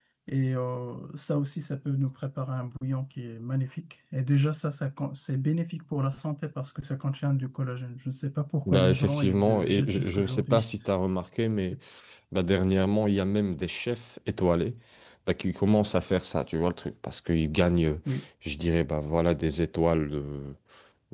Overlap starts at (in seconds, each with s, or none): 8.7 s